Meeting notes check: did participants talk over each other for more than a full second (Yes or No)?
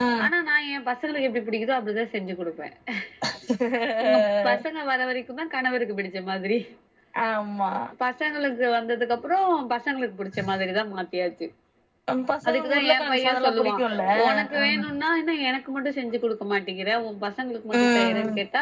Yes